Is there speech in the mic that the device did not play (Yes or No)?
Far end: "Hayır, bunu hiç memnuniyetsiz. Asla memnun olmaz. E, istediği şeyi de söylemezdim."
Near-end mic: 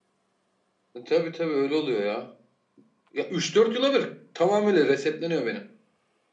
Yes